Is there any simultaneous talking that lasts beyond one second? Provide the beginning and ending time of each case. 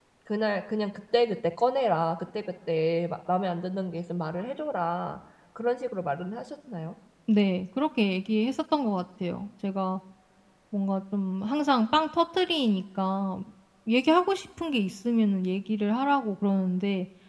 none

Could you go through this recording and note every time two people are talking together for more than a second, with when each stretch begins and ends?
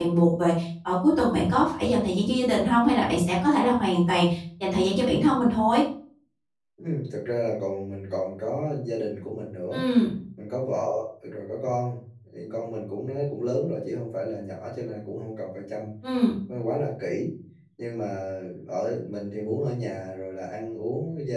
none

